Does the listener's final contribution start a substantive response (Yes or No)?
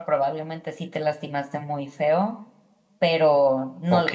Yes